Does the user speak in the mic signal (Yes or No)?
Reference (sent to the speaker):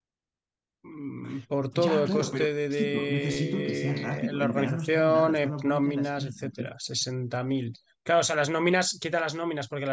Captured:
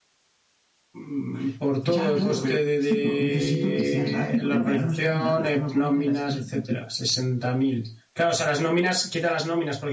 No